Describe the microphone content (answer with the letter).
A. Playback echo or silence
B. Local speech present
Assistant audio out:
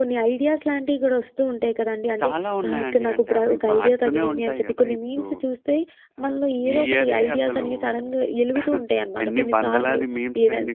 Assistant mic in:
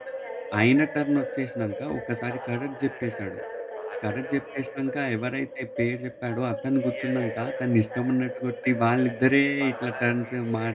B